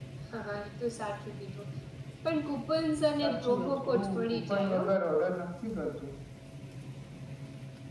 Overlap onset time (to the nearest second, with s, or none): 3 s